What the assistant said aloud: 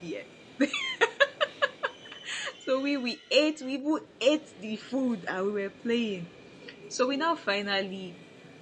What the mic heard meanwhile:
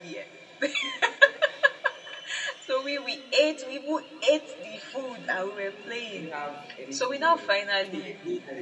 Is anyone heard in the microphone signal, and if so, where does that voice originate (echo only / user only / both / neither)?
both